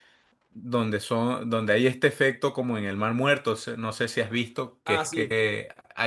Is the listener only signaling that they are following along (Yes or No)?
Yes